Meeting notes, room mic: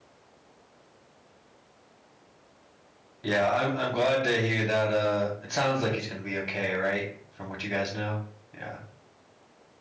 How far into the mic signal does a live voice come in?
3.2 s

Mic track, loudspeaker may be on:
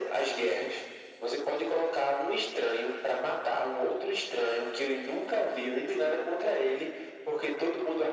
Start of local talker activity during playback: none

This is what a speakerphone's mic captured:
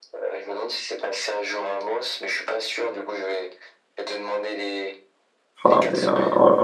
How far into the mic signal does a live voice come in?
5.6 s

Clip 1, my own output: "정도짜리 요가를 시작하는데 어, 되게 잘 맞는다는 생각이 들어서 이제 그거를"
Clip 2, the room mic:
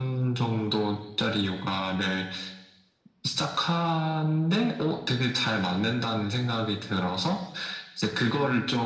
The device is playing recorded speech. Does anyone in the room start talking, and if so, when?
none

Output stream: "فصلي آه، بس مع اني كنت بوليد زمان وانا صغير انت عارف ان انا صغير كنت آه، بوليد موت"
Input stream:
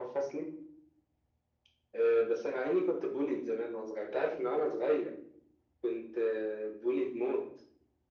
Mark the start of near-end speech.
none

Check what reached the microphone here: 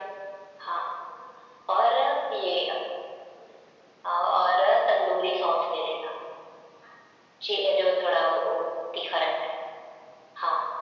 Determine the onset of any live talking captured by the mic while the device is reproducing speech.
none

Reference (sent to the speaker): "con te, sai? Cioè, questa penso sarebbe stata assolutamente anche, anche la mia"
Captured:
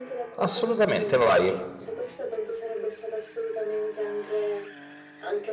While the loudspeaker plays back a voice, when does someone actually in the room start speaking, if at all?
0.4 s

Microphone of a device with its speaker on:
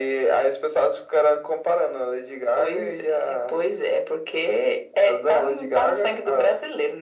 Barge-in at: none

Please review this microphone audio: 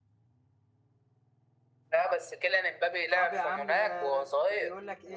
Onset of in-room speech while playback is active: 3.1 s

